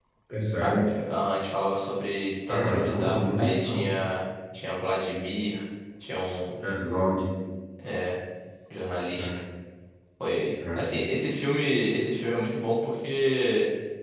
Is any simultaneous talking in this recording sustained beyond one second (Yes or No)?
Yes